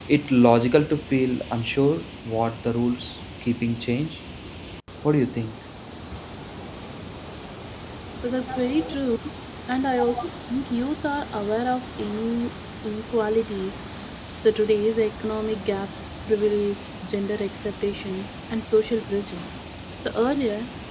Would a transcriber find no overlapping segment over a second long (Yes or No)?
Yes